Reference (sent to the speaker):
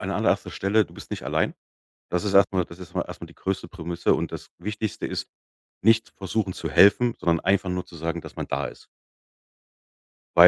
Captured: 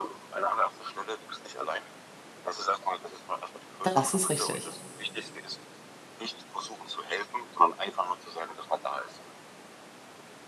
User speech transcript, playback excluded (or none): Das ist richtig.